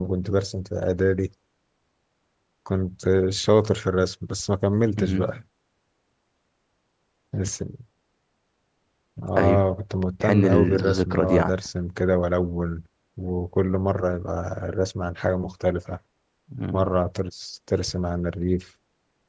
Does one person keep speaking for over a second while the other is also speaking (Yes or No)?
Yes